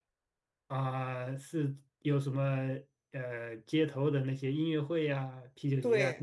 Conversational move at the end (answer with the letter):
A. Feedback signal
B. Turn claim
B